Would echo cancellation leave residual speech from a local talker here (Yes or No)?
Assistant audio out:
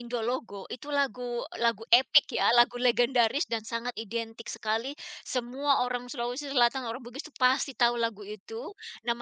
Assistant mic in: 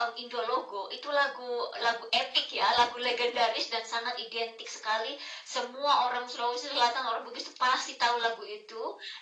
No